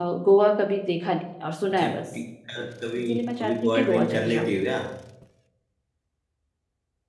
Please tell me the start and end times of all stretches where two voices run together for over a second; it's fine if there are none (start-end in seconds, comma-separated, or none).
3.1-4.5